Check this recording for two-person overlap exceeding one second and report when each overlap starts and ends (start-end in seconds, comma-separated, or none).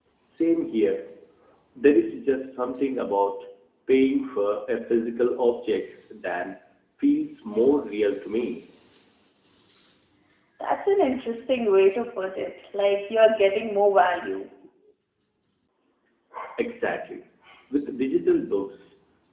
none